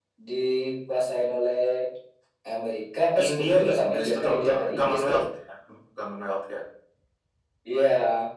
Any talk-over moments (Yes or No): Yes